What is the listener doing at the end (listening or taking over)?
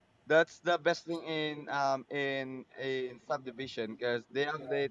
listening